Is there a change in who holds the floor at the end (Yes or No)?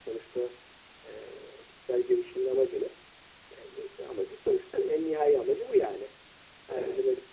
No